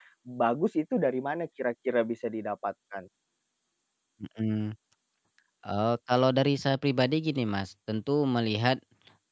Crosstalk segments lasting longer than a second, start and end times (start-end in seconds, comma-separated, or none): none